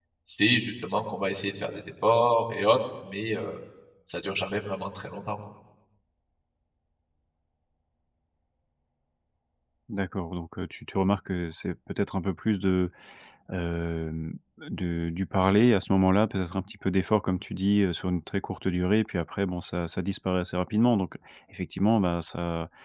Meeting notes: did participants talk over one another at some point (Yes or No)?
No